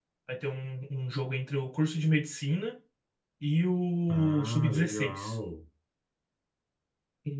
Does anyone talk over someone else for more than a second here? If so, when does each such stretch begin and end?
4.1-5.3

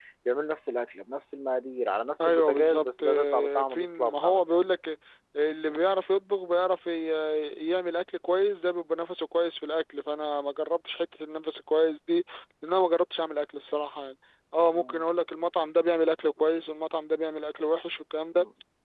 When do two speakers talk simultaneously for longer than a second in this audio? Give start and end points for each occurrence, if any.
2.2-4.4

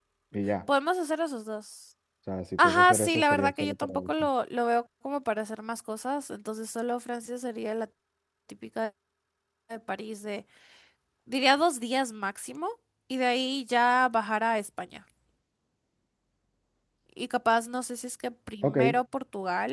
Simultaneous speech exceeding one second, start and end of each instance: 2.6-4.2

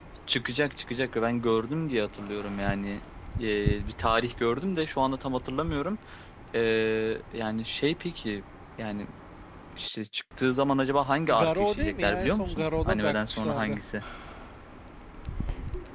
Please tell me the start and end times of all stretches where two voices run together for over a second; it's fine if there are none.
11.3-13.8

